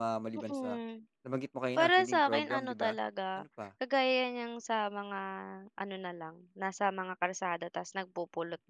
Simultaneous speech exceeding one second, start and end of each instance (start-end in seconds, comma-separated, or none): 1.8-3.0